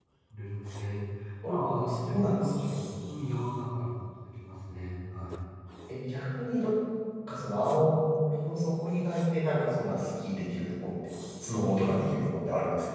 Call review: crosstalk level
present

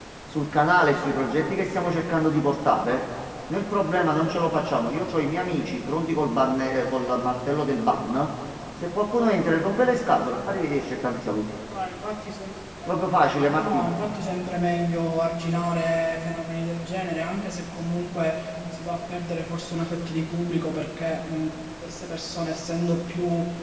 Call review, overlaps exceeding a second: none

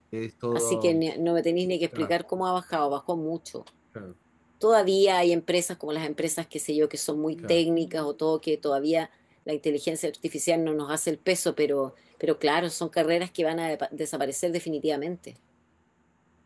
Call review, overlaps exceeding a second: none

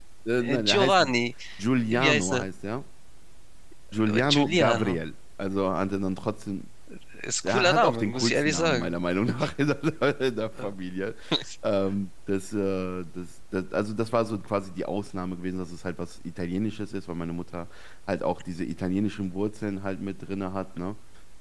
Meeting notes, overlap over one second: present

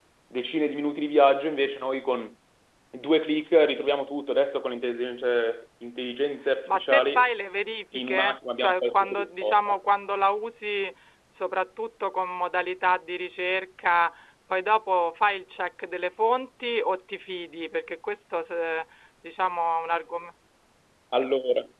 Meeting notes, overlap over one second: present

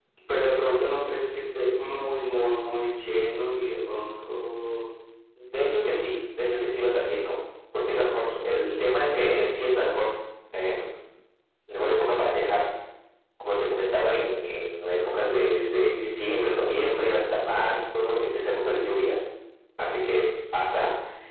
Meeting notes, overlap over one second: none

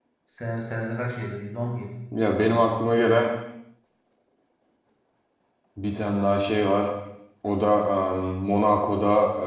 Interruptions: none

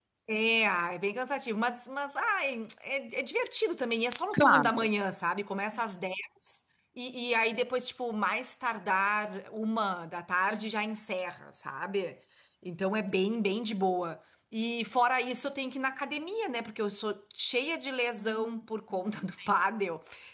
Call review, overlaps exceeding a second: none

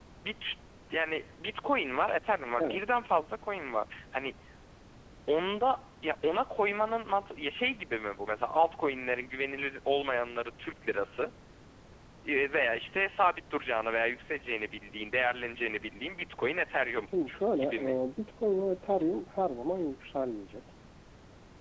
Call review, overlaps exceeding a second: none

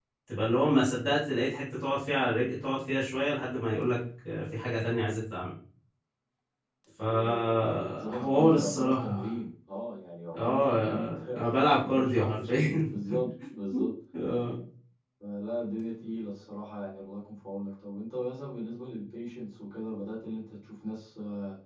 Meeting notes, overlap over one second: present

